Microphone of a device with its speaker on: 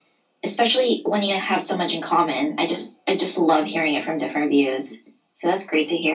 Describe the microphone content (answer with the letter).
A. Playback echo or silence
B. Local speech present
A